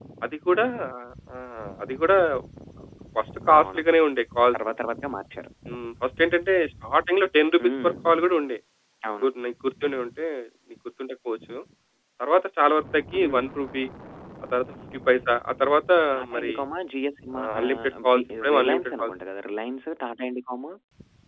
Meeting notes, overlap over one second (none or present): present